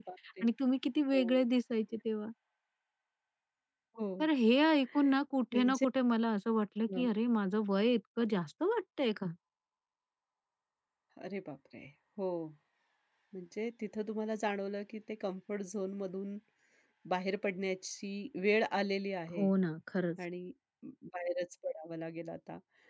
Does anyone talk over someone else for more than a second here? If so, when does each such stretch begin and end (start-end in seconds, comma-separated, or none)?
none